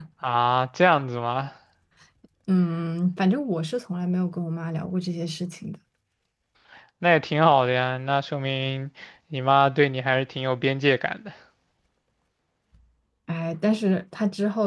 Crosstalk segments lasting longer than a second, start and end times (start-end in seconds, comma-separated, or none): none